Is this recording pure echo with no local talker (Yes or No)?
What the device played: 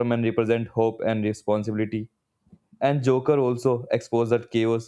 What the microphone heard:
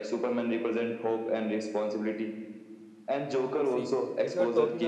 No